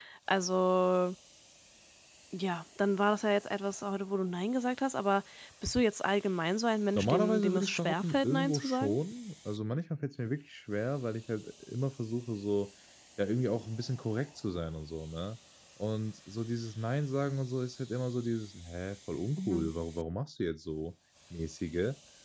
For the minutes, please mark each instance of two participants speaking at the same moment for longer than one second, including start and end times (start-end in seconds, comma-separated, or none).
7.0-9.0